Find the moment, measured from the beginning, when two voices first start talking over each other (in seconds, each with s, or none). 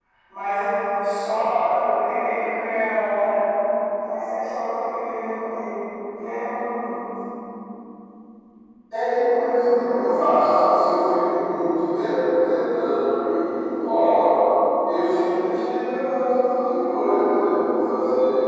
none